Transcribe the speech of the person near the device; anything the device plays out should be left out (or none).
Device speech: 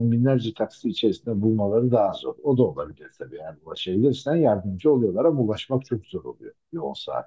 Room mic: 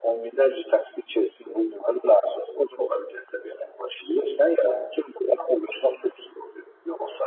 none